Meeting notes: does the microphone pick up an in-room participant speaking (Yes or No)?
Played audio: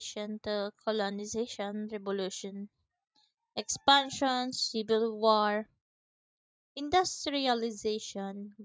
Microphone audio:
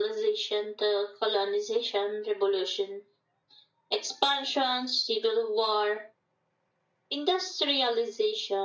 No